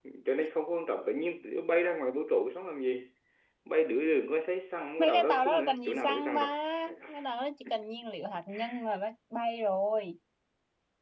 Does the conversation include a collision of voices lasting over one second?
Yes, from 5.0 s

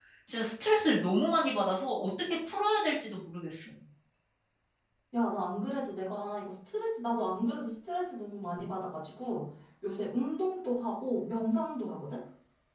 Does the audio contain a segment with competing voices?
No

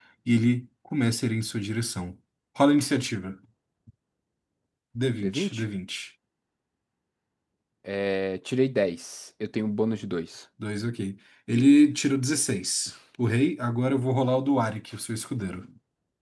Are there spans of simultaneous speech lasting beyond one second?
No

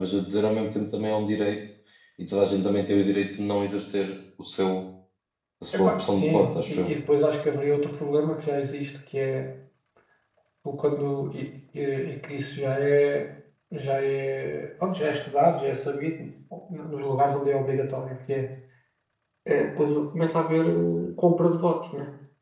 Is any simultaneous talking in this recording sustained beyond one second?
Yes, from 5.7 s

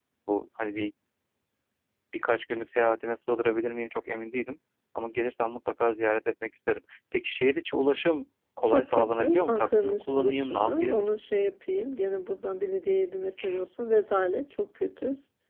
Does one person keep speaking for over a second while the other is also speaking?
Yes, from 8.7 s

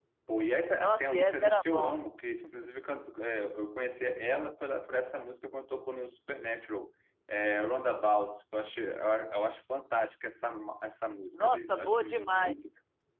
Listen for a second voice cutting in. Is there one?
Yes, from 0.8 s

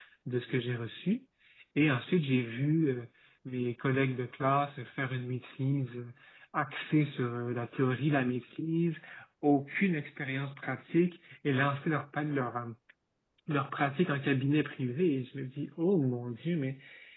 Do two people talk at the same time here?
No

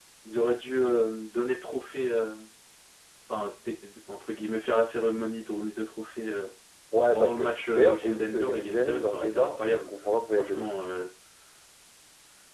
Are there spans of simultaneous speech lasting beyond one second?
Yes, from 7.1 s

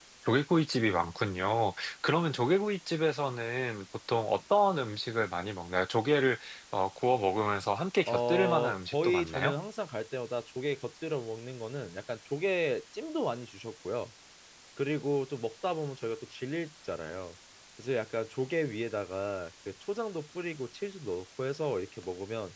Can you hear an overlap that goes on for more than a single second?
Yes, from 8.0 s

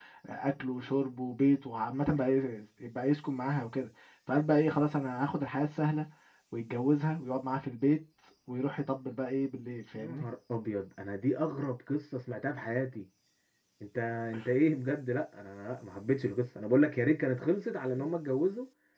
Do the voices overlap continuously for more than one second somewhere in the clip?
No

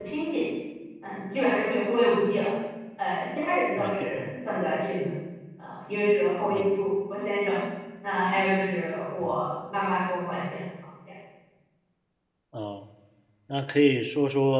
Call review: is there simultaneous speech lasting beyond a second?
No

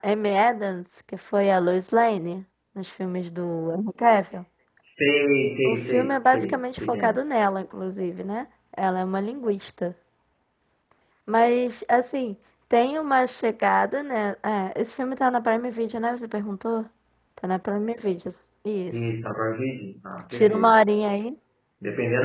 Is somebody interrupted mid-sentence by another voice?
Yes, from 5.6 s

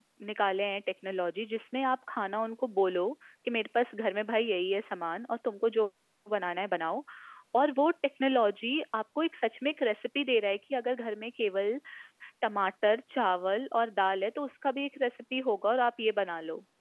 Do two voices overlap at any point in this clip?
No

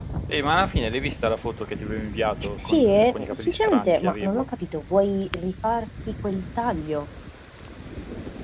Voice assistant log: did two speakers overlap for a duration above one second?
Yes, from 2.6 s

